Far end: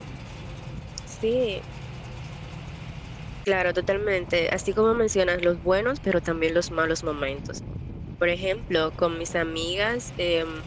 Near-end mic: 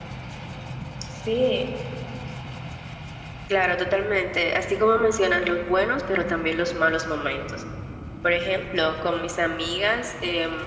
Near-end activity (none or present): none